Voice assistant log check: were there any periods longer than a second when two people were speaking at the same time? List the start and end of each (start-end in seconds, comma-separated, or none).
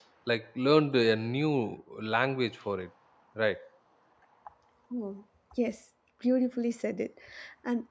none